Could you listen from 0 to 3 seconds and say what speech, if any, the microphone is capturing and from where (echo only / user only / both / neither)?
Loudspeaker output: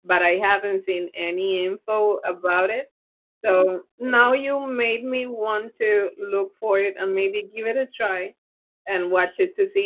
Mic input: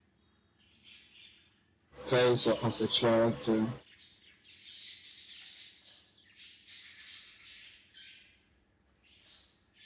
user only